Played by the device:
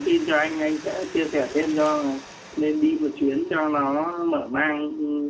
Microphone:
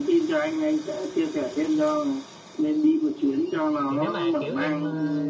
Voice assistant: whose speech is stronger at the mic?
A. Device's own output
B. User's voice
A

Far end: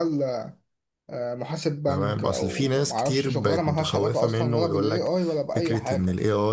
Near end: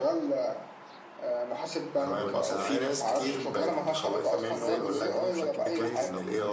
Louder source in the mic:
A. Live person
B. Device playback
B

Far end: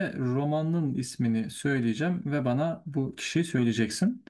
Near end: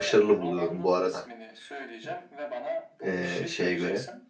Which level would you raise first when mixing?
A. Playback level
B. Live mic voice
A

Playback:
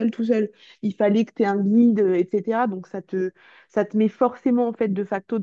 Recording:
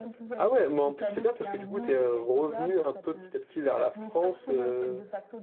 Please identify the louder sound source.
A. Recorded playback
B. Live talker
B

